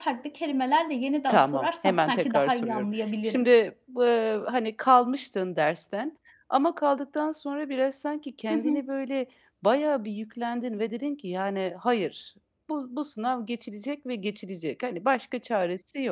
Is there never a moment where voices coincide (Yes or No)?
No